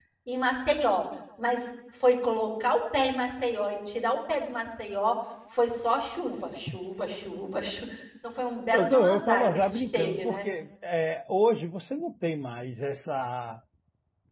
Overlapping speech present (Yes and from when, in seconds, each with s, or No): Yes, from 8.7 s